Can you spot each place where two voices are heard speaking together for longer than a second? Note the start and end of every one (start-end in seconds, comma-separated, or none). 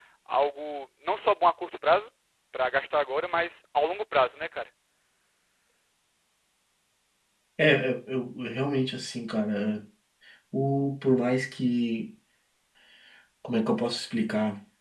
none